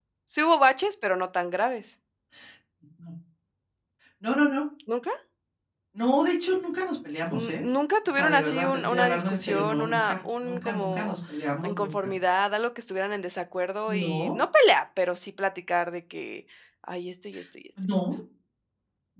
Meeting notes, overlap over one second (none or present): present